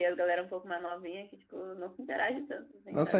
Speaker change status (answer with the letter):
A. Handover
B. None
A